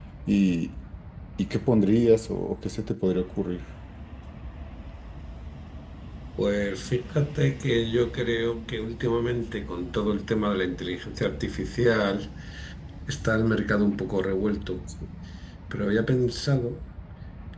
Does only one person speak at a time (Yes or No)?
Yes